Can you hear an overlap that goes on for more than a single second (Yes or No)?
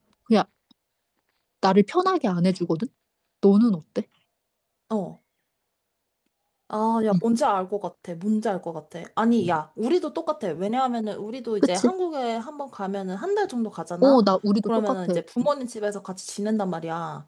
No